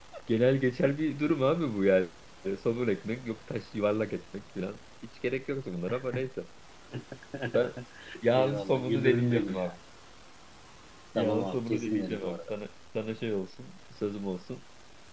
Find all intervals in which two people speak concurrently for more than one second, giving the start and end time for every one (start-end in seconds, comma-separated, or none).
8.3-9.7, 11.2-12.5